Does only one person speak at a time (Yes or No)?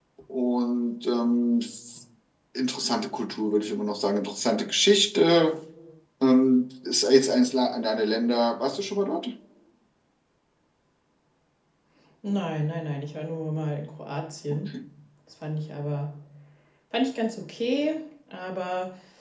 Yes